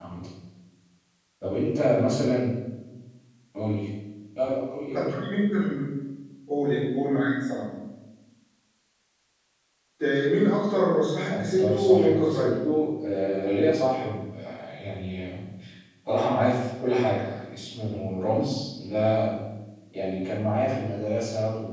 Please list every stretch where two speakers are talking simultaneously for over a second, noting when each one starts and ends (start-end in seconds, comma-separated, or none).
11.3-12.7